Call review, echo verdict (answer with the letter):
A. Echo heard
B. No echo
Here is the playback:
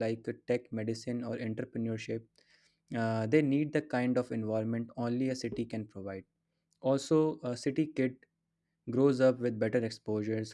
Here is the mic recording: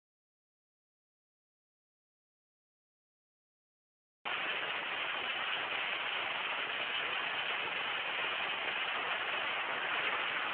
B